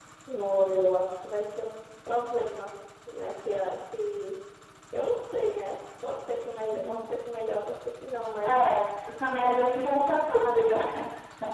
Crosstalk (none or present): present